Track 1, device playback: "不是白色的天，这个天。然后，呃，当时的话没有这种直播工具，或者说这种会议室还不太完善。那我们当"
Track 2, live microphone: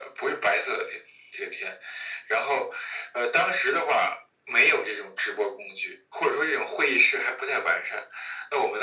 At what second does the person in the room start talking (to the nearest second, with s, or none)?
none